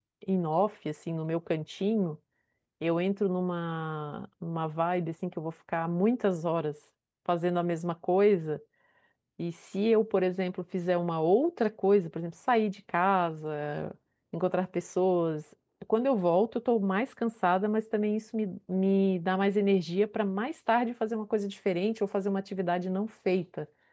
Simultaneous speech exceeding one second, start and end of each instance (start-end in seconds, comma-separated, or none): none